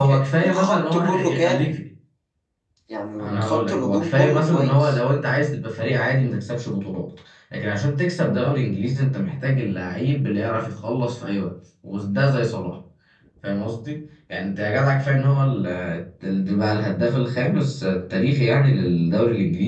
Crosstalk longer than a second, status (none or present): present